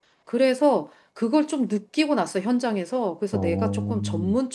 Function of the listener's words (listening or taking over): listening